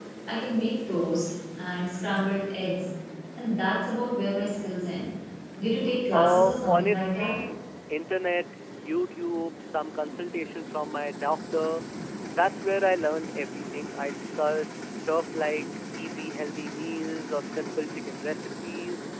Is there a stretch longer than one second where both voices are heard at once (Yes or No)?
Yes